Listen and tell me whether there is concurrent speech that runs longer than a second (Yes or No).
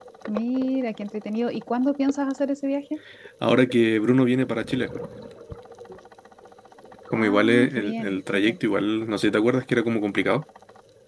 Yes